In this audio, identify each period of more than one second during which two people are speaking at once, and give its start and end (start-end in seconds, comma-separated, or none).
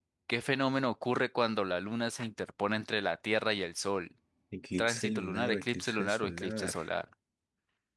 4.8-6.8